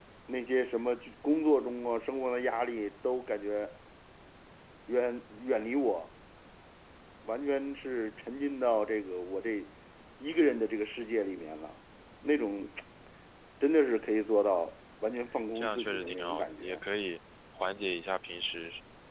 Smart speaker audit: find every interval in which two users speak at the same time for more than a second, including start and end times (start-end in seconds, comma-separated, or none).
15.6-16.8